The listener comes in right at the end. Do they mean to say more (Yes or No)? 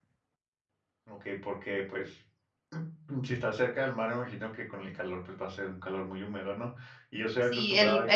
Yes